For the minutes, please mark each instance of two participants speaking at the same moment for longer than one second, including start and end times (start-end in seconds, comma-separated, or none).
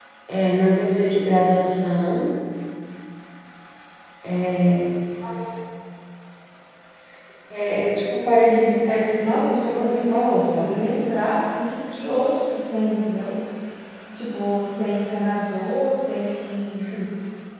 8.4-10.2